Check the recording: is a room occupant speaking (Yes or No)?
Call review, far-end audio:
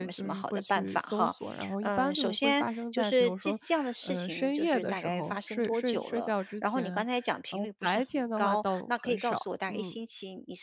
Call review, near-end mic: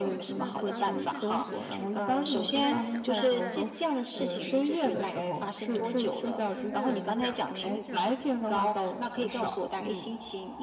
Yes